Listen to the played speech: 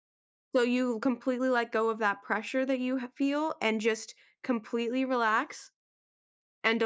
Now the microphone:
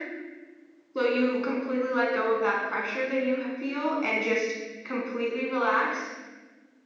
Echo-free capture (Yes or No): No